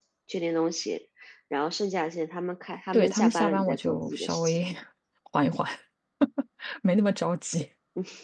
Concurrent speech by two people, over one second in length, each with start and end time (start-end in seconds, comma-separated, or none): 2.9-4.6